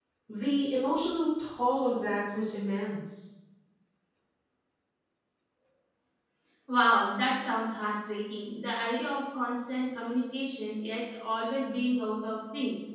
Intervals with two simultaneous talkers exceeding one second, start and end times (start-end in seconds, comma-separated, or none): none